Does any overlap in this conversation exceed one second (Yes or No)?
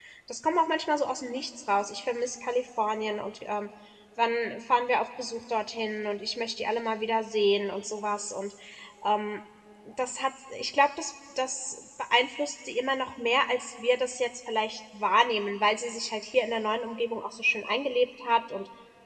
No